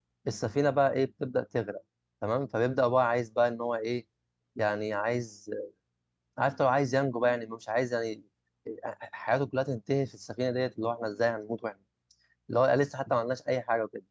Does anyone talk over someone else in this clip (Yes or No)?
No